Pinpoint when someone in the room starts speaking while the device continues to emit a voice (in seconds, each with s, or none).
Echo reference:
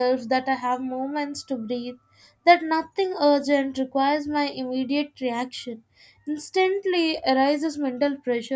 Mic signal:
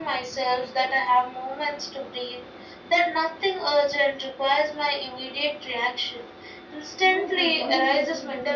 7.0 s